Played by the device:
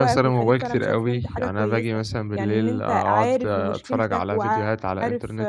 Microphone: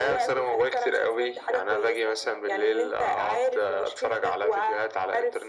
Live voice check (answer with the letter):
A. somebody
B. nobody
B